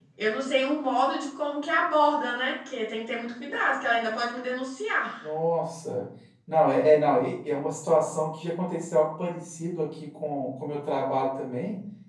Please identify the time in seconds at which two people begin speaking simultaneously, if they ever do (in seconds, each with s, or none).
none